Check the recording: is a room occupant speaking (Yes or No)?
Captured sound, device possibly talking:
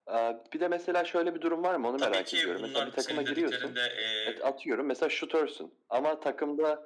Yes